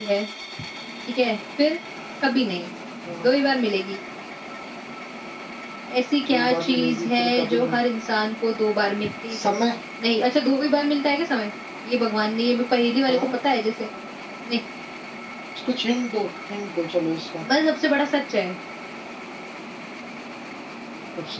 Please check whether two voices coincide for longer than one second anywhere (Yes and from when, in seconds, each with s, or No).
Yes, from 6.3 s